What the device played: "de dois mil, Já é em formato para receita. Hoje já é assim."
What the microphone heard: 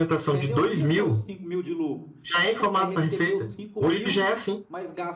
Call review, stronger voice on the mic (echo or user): echo